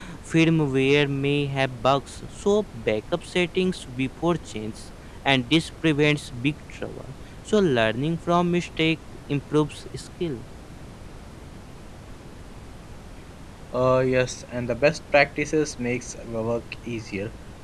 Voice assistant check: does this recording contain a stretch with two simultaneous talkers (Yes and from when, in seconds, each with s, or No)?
No